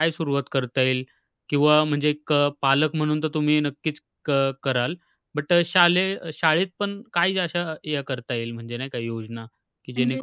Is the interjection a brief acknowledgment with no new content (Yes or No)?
Yes